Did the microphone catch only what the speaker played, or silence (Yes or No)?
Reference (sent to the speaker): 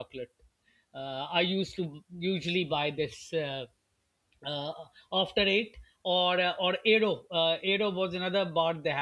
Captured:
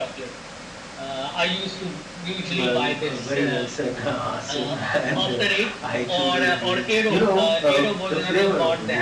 No